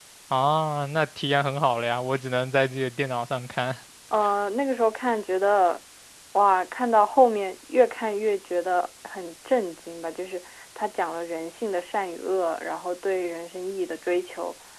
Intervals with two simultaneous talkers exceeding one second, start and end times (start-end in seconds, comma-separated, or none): none